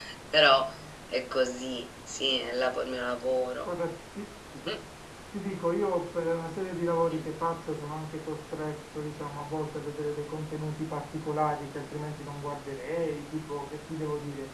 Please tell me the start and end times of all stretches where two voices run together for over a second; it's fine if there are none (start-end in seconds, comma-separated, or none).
none